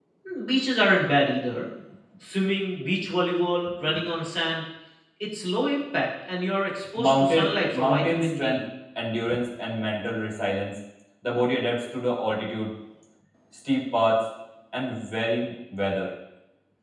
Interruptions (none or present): present